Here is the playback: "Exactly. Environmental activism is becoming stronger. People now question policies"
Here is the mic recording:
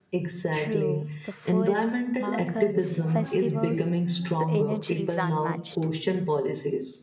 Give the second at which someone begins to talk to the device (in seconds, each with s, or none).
0.5 s